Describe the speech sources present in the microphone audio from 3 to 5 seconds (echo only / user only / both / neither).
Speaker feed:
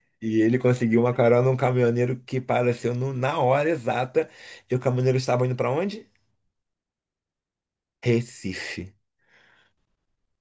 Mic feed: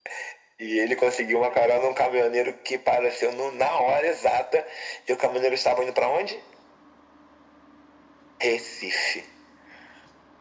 echo only